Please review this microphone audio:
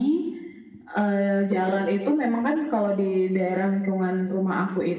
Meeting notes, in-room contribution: none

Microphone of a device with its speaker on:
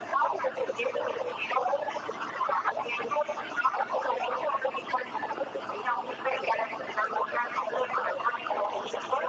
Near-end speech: none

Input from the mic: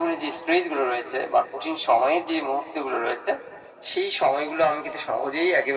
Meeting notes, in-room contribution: none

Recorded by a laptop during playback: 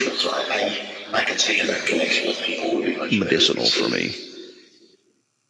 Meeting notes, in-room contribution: present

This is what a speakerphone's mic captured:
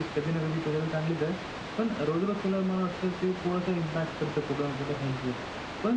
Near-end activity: none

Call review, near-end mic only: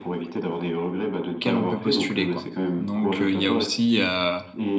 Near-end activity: present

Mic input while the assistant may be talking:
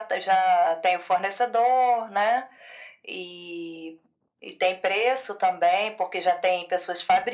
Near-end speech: none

